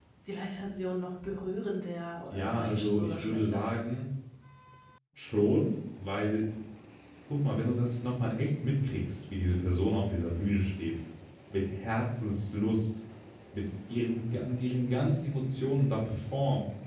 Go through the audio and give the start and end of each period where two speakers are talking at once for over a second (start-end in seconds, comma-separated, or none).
2.3-3.7